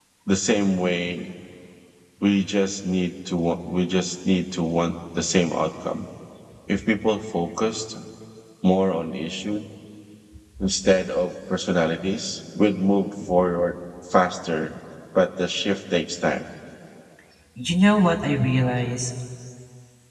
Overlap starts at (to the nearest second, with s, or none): none